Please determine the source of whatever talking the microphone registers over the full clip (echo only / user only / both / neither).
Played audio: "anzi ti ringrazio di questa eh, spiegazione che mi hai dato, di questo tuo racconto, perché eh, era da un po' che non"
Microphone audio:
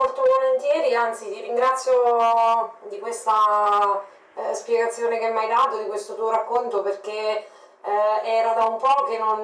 echo only